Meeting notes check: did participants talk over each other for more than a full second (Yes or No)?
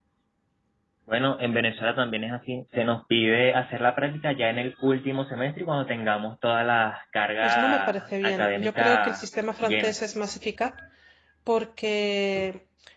Yes